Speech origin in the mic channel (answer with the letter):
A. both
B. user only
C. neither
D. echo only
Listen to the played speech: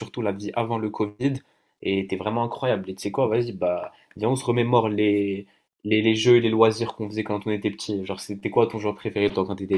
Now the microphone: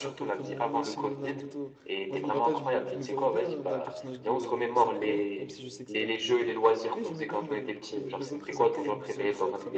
A